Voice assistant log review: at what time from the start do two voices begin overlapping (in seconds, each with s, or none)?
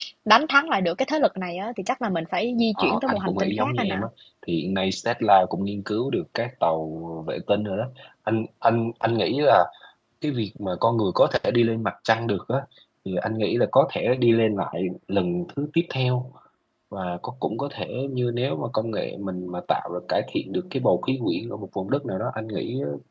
2.8 s